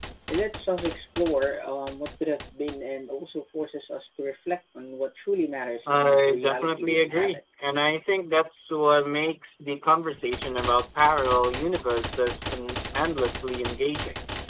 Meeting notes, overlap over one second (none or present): present